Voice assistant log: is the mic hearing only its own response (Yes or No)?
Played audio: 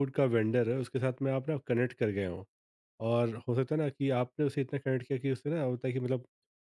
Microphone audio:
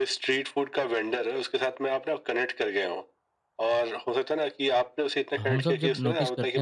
No